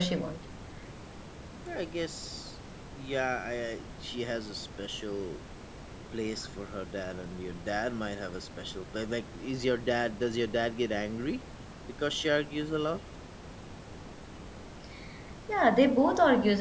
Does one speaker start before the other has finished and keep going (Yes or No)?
No